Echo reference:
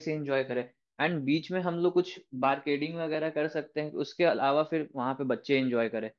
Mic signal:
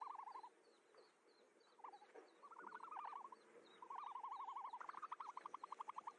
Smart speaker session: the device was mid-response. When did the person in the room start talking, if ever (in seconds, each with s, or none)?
none